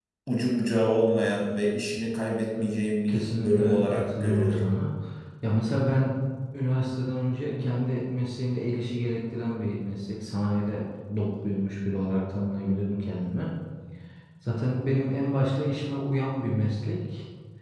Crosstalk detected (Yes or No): Yes